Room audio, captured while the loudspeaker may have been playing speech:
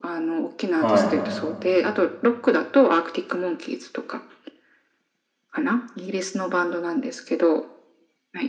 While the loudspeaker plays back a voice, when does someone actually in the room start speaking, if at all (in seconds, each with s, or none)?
0.7 s